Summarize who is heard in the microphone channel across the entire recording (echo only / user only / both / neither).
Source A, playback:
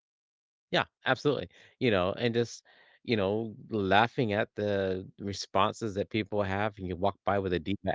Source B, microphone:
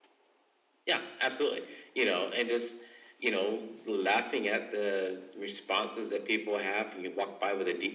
echo only